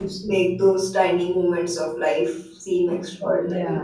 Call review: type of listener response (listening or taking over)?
taking over